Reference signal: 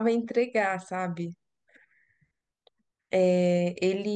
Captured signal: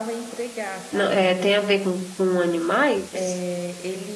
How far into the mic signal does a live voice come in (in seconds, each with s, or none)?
0.9 s